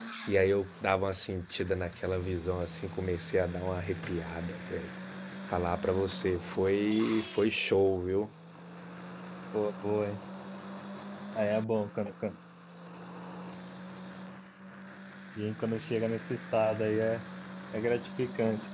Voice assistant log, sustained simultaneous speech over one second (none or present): none